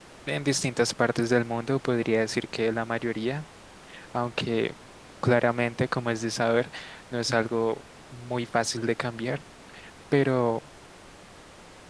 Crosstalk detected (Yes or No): No